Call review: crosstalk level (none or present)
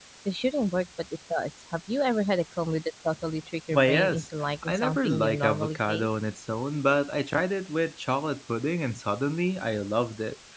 present